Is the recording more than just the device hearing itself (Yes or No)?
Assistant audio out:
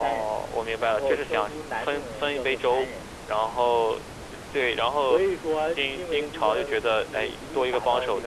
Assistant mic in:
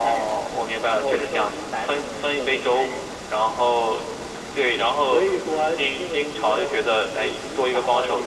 No